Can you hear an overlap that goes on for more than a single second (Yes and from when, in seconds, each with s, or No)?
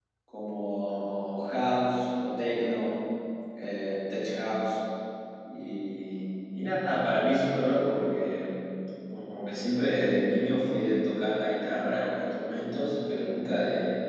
No